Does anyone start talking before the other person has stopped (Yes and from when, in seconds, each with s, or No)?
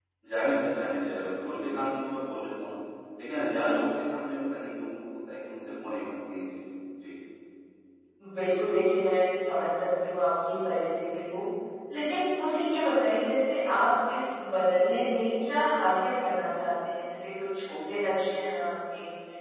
No